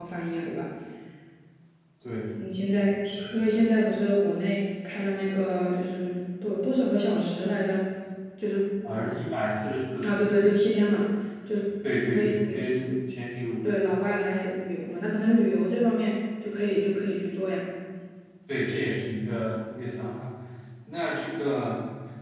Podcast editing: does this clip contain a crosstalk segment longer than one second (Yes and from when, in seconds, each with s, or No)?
No